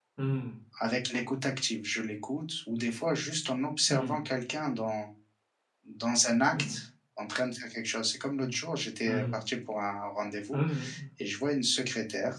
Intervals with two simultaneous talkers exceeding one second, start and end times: none

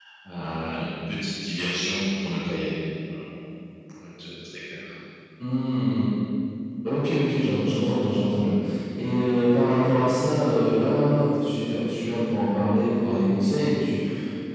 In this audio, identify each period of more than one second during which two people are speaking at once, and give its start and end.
none

